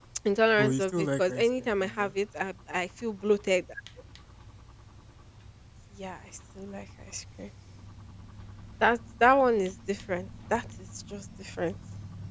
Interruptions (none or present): present